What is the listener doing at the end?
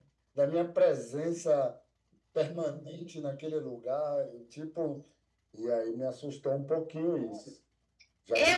taking over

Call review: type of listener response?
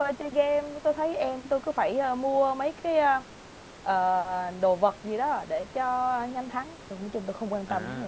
taking over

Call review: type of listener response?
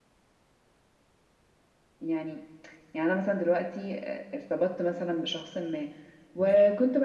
listening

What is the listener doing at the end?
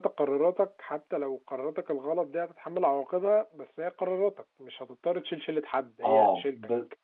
taking over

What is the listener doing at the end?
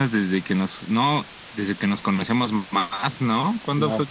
taking over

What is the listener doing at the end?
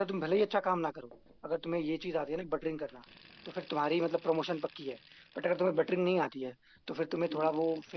listening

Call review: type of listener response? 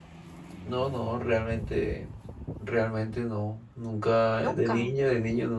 listening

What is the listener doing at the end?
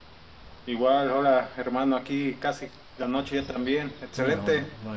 taking over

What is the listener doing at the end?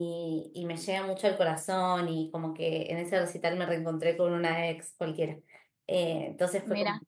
listening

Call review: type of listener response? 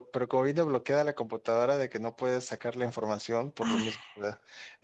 listening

